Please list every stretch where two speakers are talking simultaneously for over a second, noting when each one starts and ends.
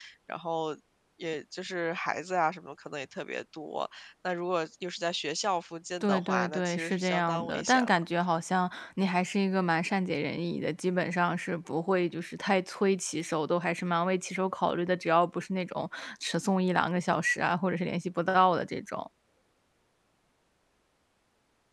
6.0-8.0

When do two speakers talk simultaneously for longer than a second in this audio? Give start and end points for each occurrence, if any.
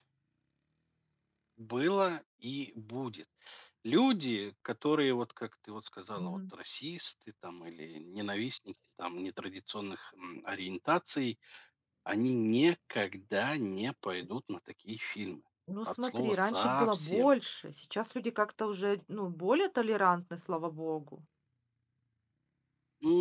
15.9-17.3

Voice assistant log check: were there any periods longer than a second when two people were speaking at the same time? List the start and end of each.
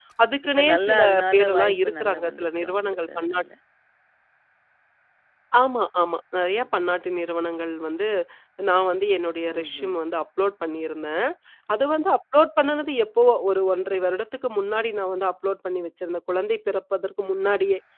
0.6-3.4

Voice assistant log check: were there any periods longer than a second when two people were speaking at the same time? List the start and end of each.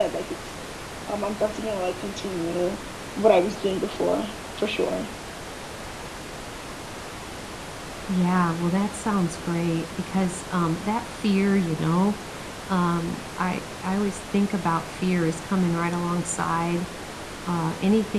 none

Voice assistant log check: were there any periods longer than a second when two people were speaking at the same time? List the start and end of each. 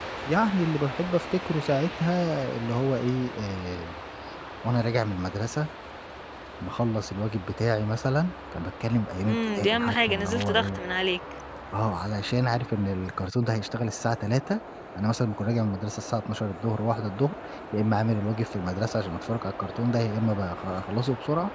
9.2-10.8

